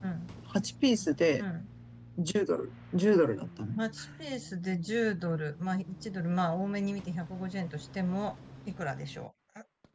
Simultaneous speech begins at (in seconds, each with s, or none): none